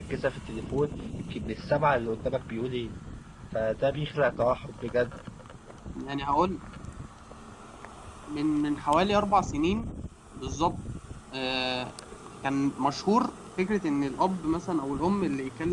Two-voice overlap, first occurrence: none

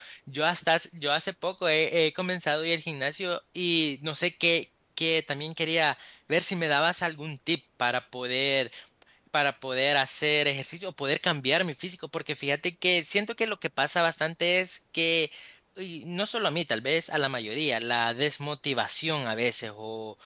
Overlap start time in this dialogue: none

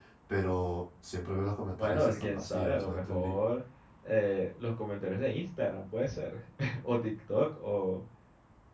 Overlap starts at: 1.8 s

